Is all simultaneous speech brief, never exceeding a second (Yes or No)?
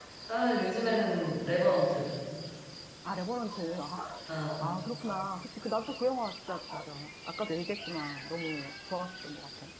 Yes